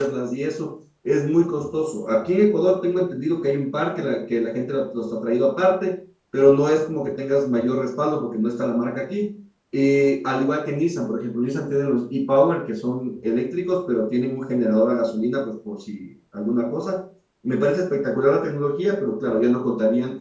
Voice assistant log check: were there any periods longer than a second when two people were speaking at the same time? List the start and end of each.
none

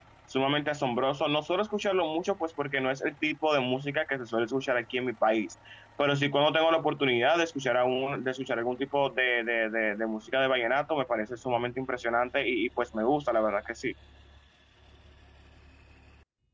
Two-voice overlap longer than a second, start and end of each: none

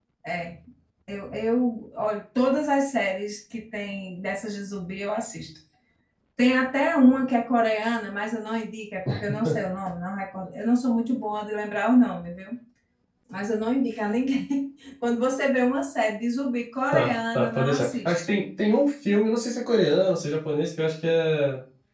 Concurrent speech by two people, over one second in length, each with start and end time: 16.9-18.1

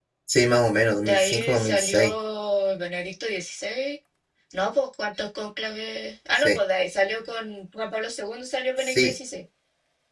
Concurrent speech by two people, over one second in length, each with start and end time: 0.9-2.1

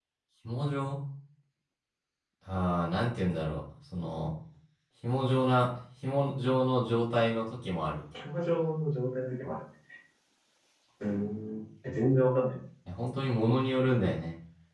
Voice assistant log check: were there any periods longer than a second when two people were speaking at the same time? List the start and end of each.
none

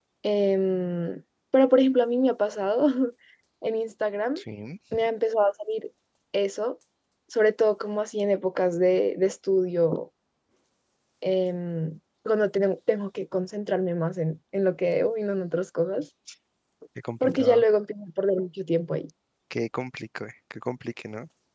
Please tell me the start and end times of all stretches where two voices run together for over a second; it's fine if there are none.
none

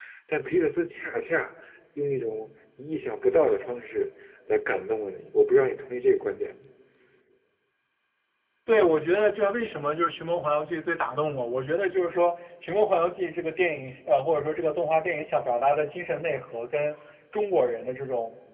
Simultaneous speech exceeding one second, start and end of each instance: none

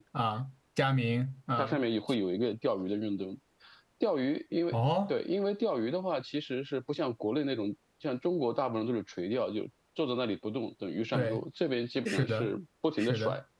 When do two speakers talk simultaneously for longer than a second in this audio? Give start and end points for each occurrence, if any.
none

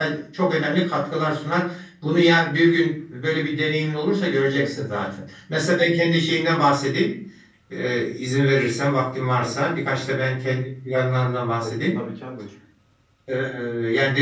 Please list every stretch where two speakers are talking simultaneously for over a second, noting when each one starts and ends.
none

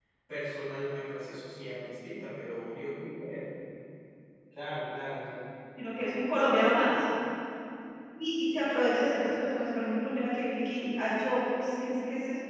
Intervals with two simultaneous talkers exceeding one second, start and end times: none

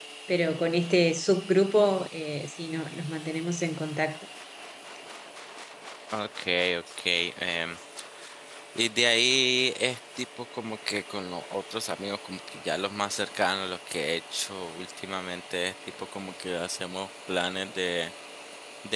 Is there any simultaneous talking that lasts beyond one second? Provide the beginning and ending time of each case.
none

